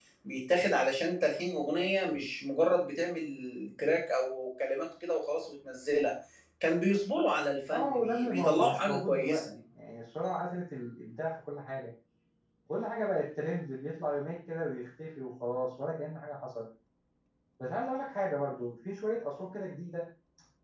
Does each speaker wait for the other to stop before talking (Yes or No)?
No